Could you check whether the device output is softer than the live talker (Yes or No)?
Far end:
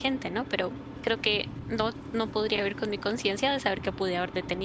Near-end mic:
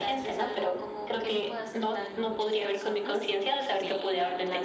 No